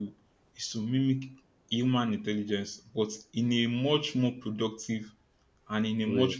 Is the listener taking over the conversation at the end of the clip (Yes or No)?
No